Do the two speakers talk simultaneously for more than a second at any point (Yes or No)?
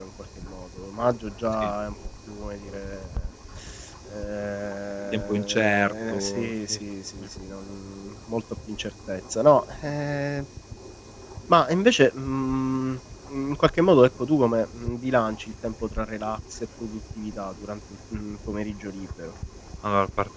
Yes